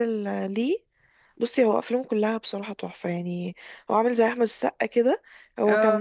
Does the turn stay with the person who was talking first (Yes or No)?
Yes